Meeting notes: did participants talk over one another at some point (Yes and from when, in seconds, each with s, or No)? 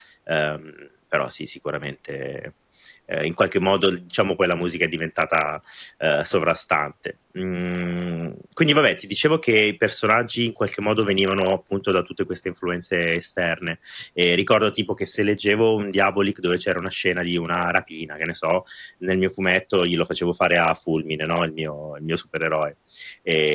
No